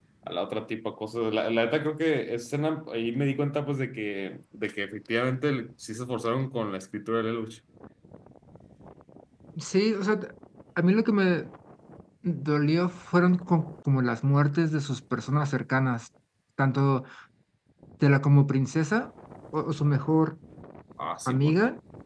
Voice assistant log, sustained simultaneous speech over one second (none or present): none